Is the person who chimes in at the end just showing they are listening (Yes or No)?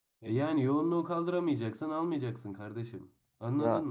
No